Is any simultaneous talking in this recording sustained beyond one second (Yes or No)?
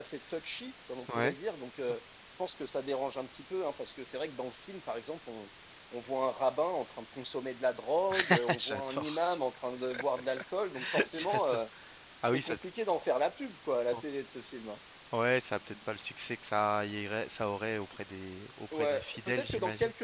Yes